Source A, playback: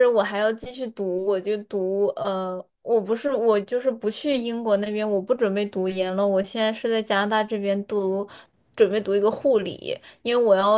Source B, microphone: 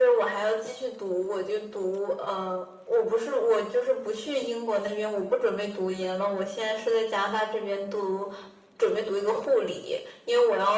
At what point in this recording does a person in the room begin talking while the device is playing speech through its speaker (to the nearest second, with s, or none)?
none